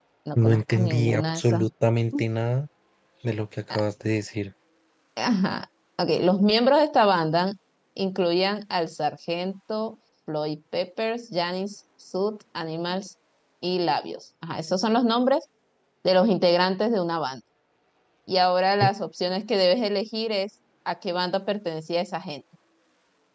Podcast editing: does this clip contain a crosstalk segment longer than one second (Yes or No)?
Yes